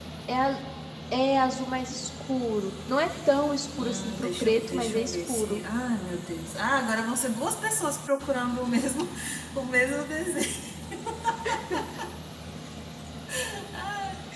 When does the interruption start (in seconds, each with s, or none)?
3.8 s